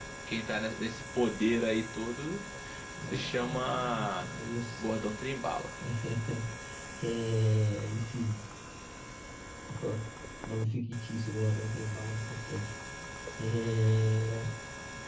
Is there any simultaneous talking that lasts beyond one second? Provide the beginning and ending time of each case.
3.1-4.3

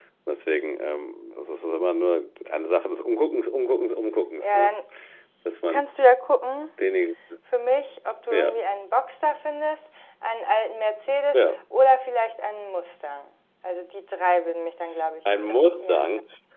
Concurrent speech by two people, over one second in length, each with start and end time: none

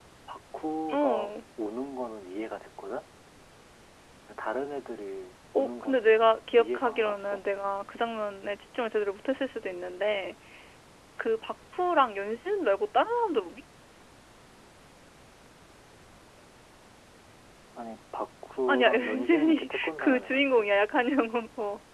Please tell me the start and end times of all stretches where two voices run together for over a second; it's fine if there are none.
5.5-7.4, 18.7-20.7

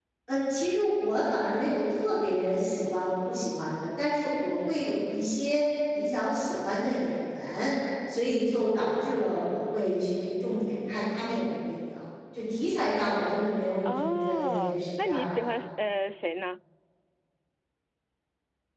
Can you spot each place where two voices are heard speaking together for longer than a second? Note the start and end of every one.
13.8-15.5

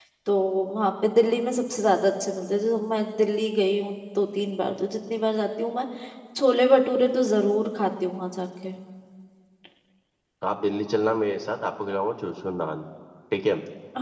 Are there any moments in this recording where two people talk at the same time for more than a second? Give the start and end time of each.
none

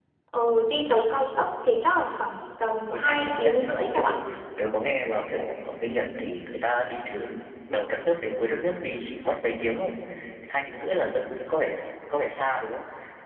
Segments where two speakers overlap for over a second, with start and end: 2.9-4.1

